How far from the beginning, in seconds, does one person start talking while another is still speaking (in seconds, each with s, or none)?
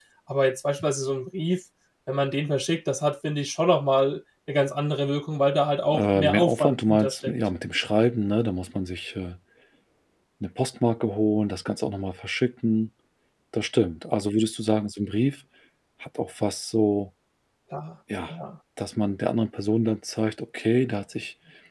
5.9 s